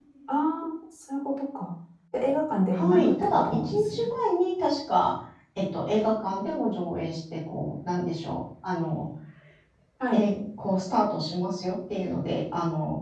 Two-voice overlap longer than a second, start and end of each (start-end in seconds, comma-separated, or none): 2.7-4.1